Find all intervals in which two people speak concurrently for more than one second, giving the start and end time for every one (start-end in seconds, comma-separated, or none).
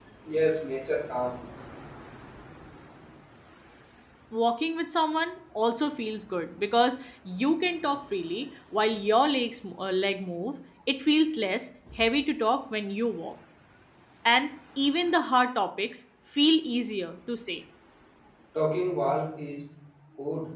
none